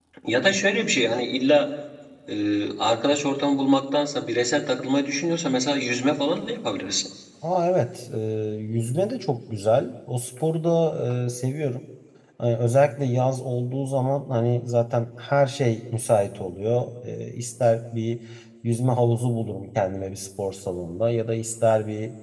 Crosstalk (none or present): none